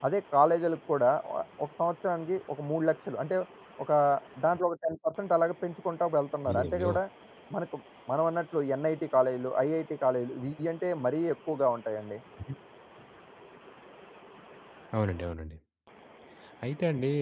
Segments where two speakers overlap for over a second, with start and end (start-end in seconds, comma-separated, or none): none